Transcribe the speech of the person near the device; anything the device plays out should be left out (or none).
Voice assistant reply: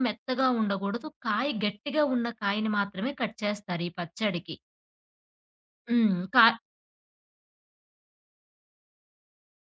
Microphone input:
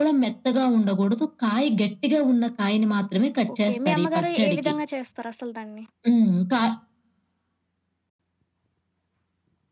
ఓకే. మీ అమ్మగారు ఏ విధంగా చేస్తారసలు దాన్ని?